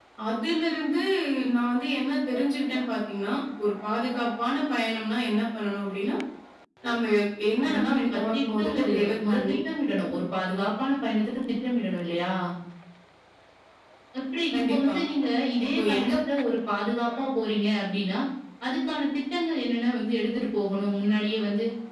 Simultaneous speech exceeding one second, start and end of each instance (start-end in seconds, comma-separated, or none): 7.6-9.4